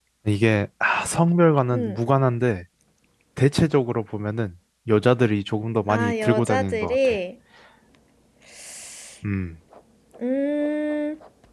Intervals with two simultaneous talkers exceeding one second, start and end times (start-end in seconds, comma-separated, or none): 5.9-7.2